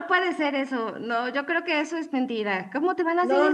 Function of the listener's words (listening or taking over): taking over